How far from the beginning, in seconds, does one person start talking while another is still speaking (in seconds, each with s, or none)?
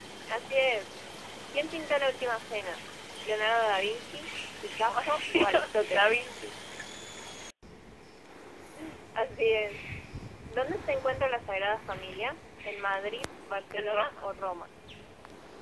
4.9 s